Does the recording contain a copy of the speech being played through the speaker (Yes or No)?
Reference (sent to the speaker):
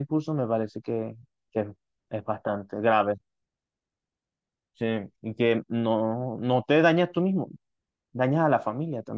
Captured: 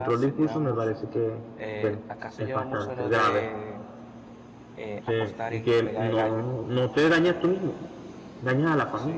Yes